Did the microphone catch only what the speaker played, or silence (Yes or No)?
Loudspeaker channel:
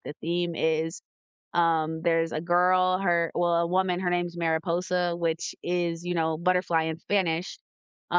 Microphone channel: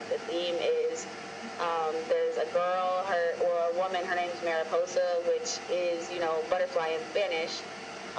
Yes